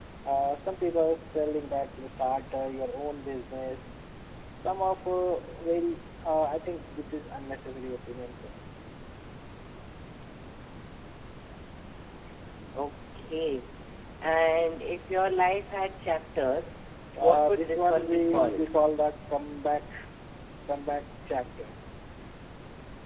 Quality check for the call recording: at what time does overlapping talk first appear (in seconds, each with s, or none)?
17.2 s